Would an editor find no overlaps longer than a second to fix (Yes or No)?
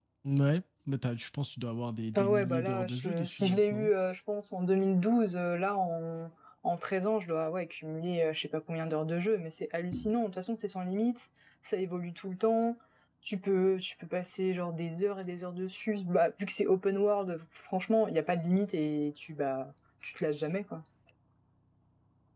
No